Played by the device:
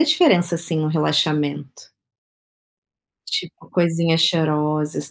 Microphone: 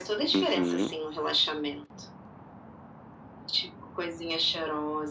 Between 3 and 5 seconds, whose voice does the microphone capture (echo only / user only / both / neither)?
echo only